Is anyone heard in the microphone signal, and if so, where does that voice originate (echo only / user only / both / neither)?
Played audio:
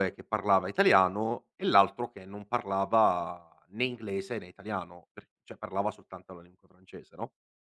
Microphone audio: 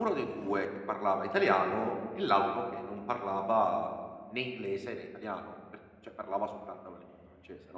echo only